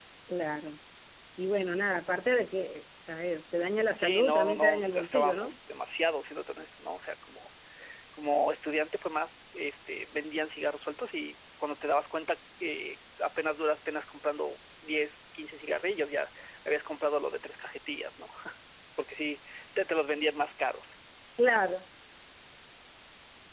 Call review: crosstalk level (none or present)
present